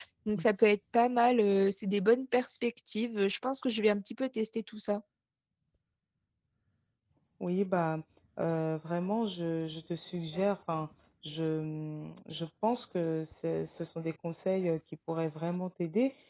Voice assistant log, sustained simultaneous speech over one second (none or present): none